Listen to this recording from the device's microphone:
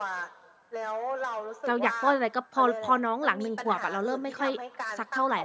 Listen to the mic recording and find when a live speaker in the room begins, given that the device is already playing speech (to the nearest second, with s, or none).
2 s